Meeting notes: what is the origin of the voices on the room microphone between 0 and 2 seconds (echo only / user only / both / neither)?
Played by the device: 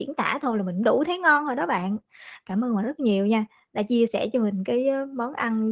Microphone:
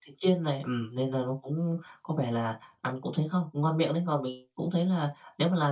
user only